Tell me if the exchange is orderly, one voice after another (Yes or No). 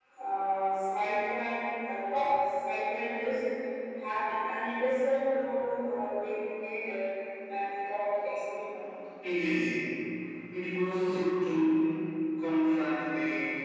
Yes